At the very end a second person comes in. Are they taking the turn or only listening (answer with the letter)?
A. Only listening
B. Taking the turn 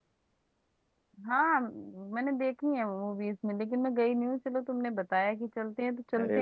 B